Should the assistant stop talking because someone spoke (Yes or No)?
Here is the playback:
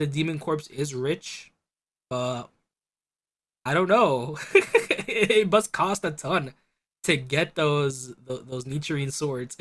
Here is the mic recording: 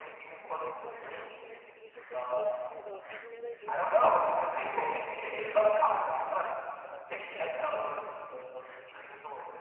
Yes